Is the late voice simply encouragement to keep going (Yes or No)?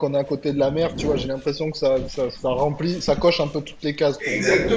No